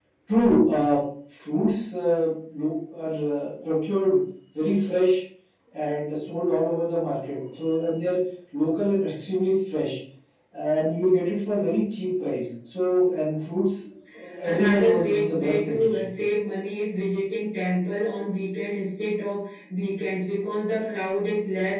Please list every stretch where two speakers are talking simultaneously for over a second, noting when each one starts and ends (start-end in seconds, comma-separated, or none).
14.4-16.1